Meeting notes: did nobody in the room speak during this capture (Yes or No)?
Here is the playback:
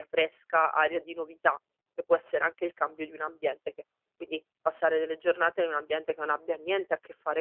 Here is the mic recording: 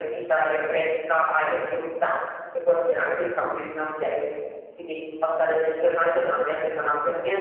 Yes